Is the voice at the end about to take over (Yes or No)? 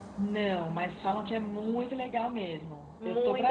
Yes